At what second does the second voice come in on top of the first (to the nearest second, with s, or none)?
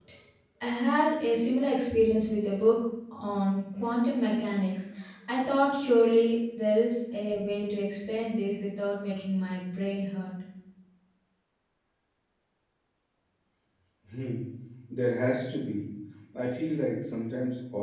none